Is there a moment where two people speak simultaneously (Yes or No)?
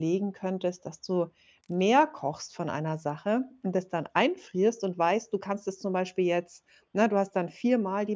No